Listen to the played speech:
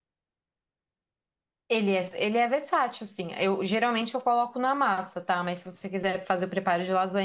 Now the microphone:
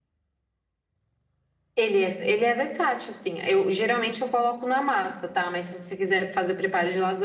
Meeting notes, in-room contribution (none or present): none